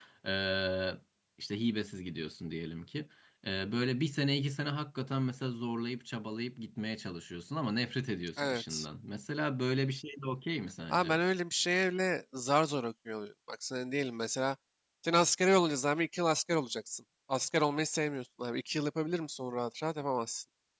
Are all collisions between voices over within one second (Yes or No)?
Yes